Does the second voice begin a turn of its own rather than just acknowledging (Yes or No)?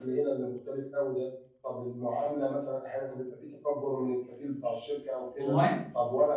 No